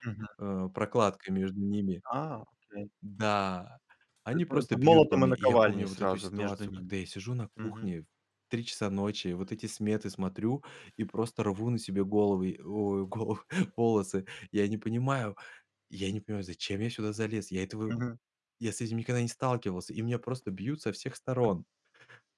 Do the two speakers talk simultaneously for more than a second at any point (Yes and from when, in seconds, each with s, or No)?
Yes, from 4.3 s